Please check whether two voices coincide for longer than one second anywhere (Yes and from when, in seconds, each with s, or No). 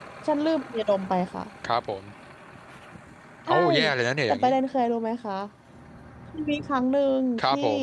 No